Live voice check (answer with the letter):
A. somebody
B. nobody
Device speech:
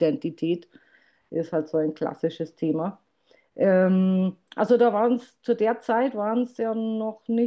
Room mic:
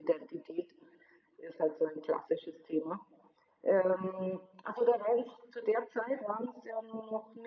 B